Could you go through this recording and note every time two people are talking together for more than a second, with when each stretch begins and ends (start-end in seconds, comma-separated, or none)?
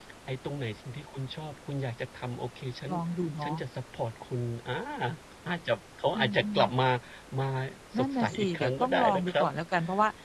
8.0-9.5